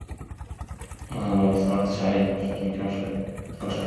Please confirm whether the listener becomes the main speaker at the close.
Yes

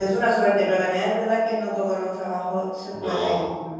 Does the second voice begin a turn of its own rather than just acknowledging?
No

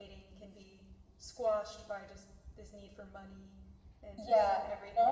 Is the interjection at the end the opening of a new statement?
Yes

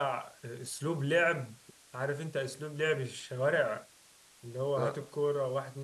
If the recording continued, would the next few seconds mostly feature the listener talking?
No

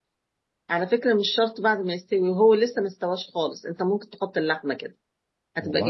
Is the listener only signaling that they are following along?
Yes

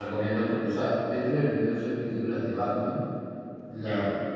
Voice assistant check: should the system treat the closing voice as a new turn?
No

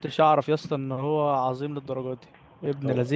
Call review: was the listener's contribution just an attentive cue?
No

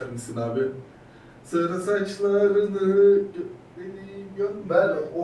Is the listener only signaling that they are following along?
No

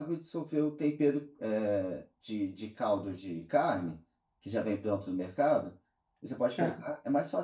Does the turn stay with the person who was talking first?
Yes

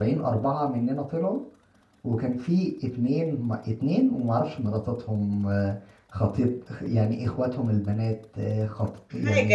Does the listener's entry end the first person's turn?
No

